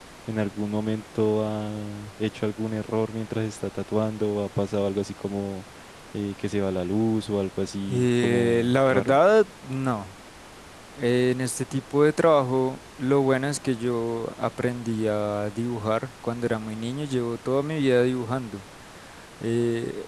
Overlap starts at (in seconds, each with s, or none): 7.9 s